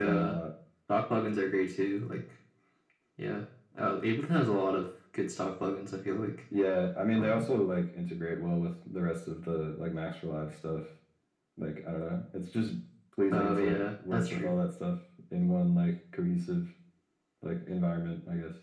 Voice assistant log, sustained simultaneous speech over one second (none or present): present